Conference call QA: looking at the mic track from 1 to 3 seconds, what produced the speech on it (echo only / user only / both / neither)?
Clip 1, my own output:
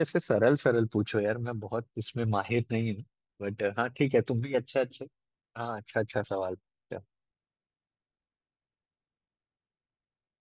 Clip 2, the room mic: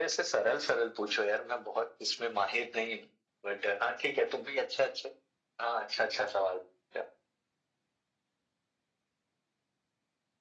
echo only